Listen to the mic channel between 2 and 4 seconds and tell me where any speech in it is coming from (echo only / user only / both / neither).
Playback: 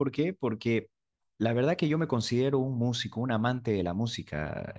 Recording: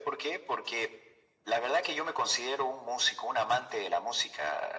echo only